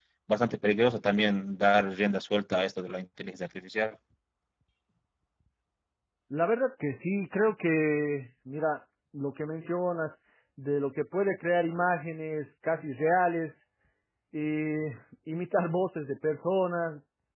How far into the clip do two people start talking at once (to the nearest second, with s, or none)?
none